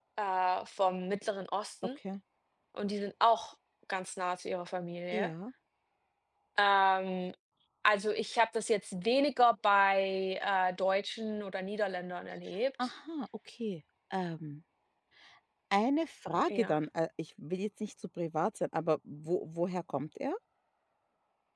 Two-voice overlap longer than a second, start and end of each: none

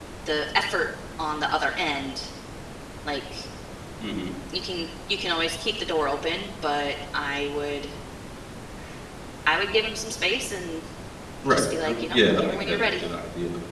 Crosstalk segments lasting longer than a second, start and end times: 11.5-13.0

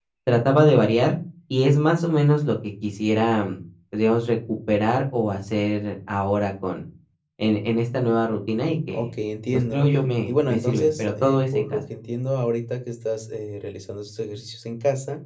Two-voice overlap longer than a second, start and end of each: 10.3-11.8

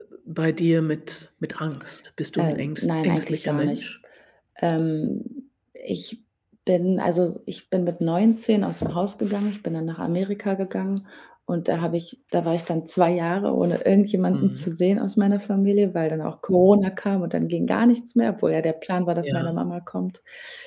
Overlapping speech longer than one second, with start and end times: 2.4-3.8

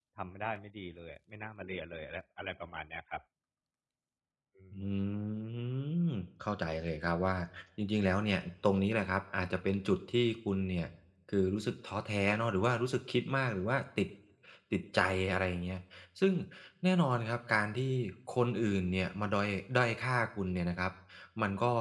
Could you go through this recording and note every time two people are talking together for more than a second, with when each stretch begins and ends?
none

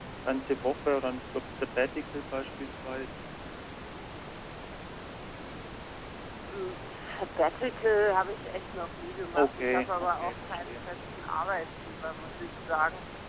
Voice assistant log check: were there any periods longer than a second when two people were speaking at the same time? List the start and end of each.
9.4-10.8

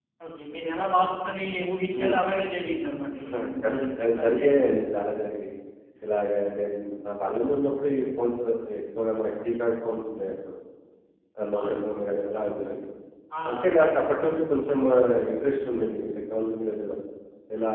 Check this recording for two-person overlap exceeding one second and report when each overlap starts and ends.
3.2-4.5

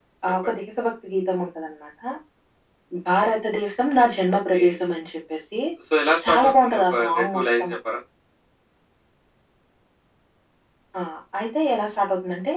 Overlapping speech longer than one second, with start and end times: 6.3-7.7

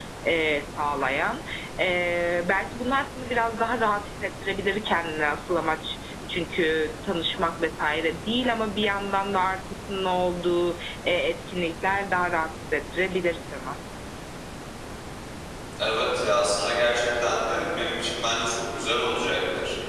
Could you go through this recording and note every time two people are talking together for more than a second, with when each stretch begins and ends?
none

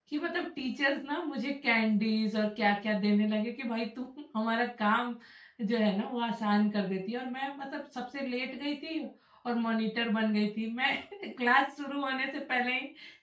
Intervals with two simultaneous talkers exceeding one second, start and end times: none

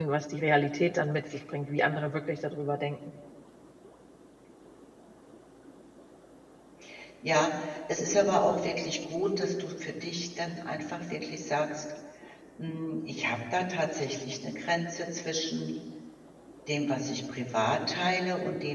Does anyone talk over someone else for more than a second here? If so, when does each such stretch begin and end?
none

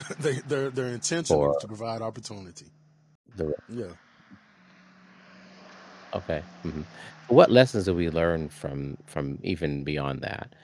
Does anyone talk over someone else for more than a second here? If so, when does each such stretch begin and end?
none

